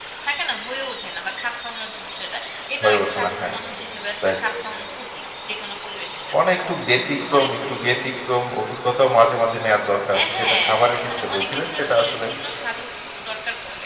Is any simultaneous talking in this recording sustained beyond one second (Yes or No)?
Yes